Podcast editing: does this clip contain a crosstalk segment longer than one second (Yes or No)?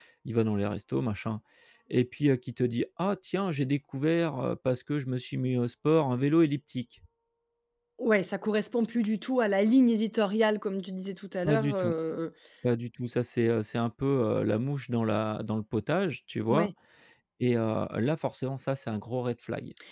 No